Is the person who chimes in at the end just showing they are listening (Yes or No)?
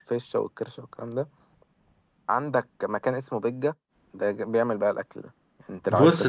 No